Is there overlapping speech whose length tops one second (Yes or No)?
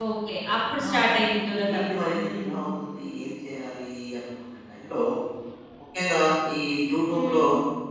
No